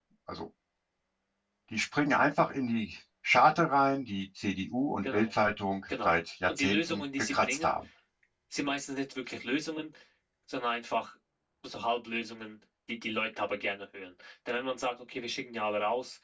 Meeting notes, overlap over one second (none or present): present